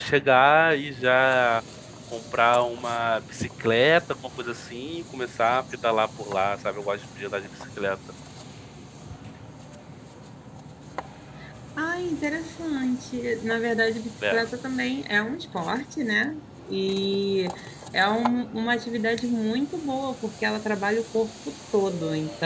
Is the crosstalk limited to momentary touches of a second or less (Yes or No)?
Yes